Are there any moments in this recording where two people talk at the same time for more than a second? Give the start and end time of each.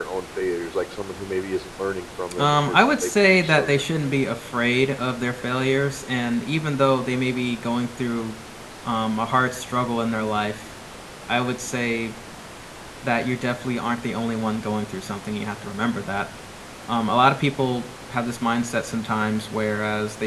2.4-3.8

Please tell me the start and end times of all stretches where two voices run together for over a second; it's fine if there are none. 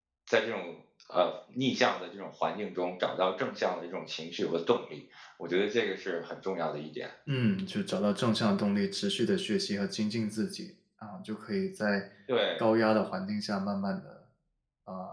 none

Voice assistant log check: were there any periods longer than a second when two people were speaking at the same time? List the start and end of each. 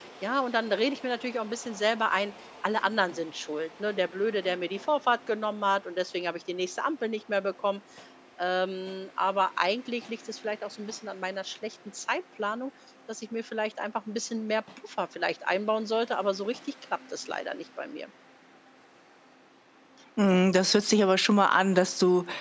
none

